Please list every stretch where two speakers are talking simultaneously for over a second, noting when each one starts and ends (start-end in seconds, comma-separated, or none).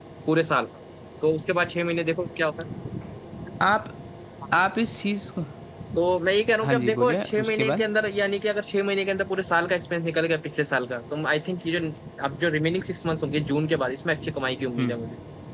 6.6-7.8